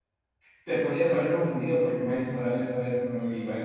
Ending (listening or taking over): taking over